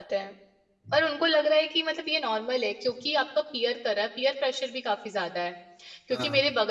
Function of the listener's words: listening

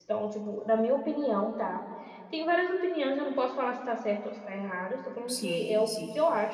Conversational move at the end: listening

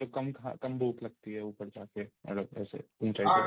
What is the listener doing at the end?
taking over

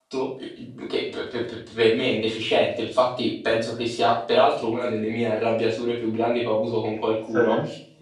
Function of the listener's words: listening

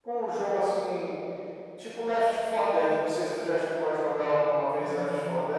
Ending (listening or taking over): taking over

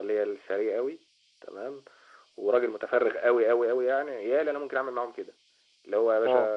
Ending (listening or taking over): listening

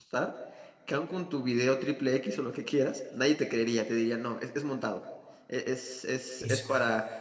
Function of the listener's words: listening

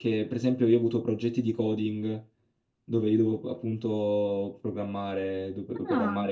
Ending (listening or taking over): listening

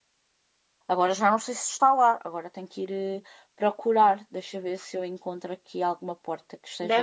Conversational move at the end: taking over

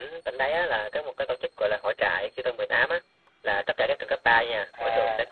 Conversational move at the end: listening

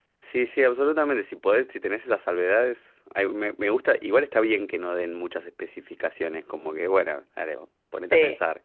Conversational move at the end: taking over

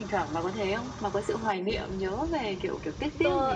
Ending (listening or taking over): taking over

